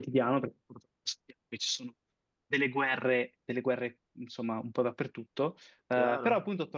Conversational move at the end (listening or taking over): listening